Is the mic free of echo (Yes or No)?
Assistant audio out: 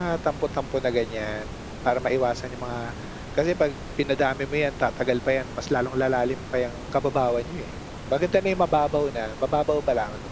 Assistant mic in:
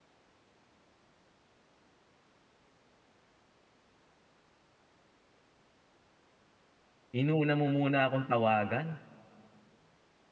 Yes